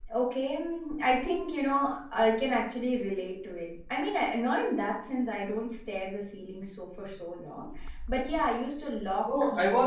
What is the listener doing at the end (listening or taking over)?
taking over